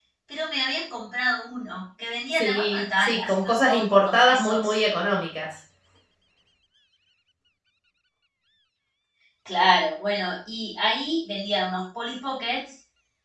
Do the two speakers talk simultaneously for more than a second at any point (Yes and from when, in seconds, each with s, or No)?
Yes, from 2.3 s